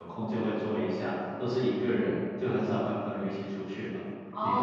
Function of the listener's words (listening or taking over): taking over